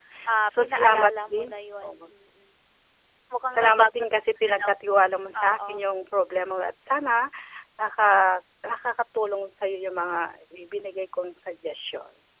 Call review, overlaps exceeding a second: present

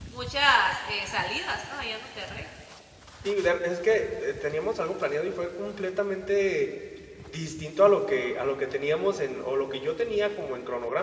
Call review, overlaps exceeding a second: none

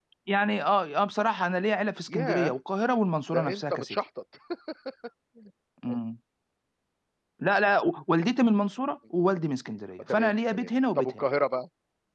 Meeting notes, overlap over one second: present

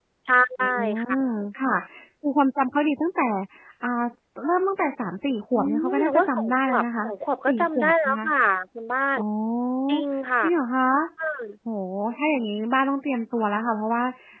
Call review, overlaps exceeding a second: present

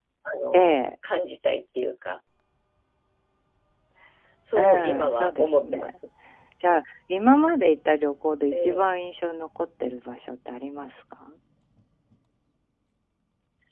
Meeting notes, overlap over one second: present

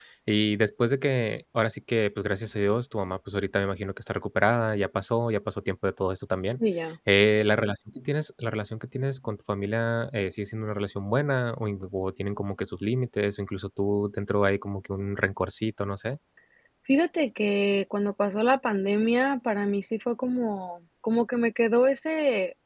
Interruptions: none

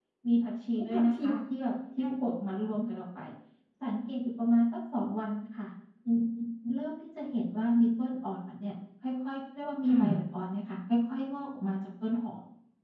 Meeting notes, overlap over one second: none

